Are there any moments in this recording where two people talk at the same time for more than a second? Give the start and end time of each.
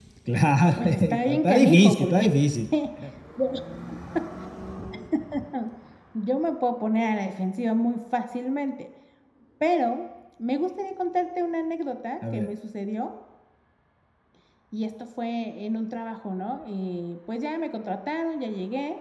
0.8-2.2

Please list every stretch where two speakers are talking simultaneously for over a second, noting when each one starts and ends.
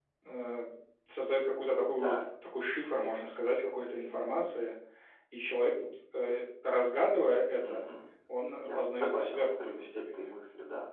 8.6-10.3

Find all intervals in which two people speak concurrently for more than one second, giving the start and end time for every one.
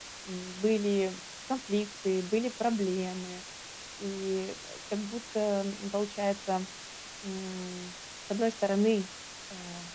none

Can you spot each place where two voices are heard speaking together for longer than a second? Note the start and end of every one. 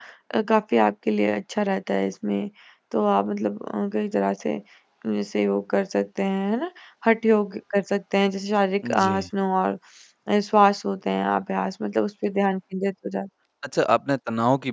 none

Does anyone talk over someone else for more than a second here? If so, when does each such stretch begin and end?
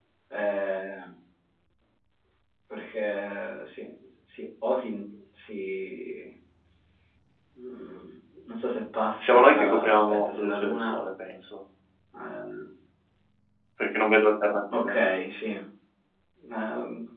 9.2-11.0

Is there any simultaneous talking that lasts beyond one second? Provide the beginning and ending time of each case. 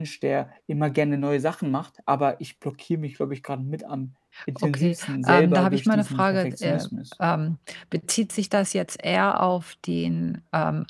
4.6-6.9

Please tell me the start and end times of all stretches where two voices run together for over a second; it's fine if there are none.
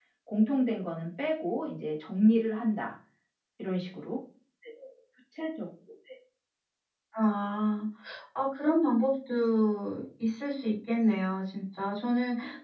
none

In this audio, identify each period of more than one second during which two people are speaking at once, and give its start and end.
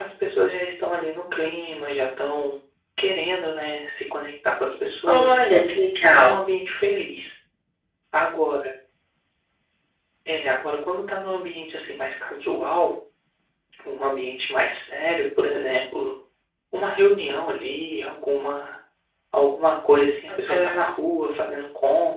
5.1-6.4

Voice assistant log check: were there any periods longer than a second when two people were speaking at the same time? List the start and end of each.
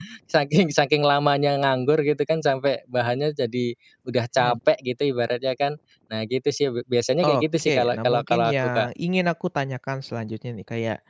7.2-8.9

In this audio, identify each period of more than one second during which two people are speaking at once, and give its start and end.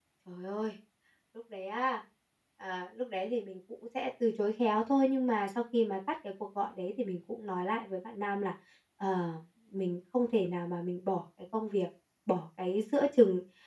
none

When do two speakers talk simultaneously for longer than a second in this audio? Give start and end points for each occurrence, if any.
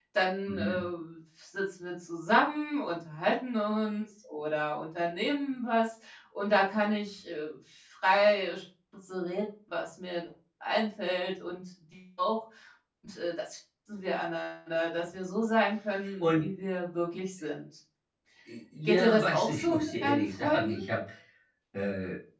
18.9-20.8

